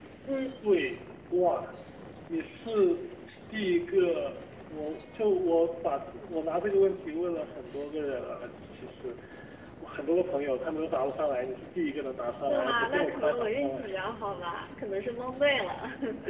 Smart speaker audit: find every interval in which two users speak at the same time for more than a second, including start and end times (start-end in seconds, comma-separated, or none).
12.5-13.8